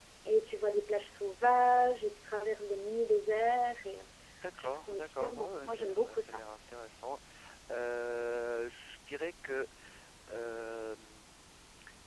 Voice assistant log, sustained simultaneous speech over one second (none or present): present